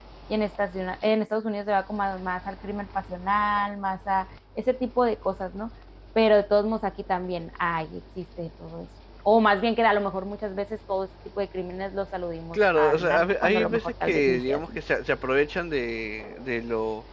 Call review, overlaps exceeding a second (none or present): present